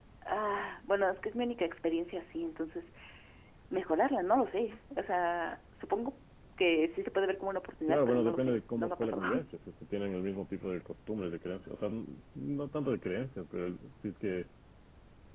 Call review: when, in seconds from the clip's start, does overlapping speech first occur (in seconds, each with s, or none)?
7.9 s